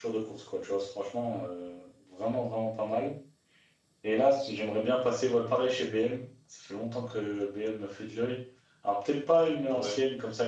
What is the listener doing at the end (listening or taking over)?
listening